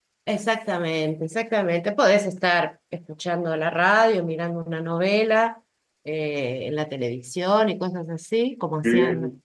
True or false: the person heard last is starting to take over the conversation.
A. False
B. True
B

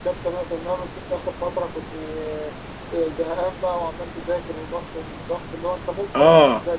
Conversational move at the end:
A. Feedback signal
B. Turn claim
A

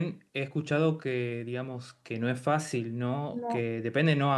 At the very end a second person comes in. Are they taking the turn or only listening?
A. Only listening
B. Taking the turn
A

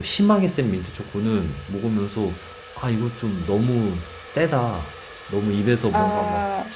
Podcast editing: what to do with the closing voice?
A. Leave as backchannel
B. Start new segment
A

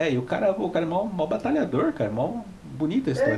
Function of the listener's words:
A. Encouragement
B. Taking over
B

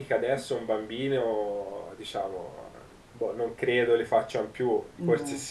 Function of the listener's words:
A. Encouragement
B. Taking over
A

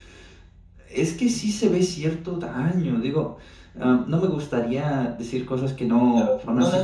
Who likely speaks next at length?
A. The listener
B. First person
A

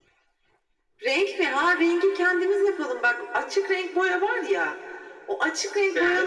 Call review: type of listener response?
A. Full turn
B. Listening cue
B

